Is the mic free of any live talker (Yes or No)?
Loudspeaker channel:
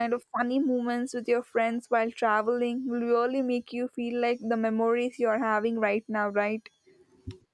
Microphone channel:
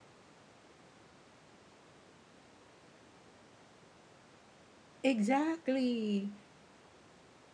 No